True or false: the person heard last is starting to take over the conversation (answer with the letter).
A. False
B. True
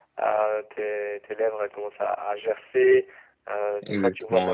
A